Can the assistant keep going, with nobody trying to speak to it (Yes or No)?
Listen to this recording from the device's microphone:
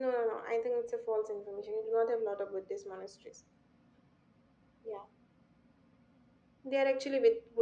Yes